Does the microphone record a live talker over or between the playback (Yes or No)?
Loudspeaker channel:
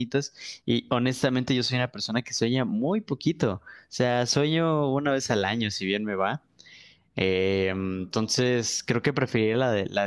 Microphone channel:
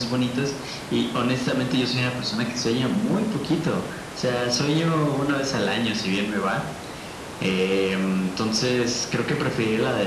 No